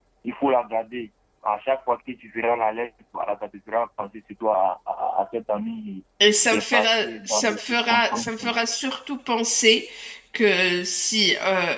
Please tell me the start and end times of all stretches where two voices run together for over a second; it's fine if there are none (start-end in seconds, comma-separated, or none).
6.5-8.3